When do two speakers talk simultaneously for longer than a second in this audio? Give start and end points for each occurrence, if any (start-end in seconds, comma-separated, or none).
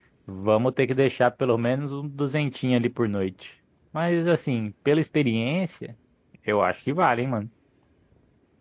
none